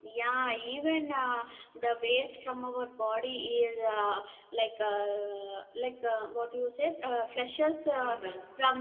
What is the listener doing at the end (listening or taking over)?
listening